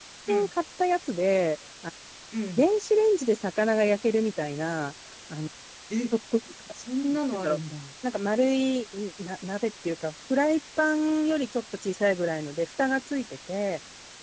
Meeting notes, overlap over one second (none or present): none